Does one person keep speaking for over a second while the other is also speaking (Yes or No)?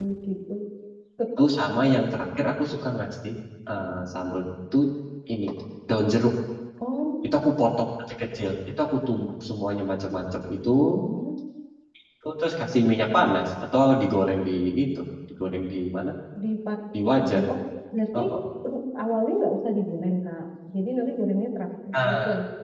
No